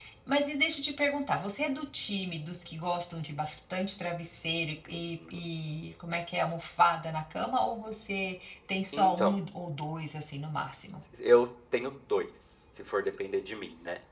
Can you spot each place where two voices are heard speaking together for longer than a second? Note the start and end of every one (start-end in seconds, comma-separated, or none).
none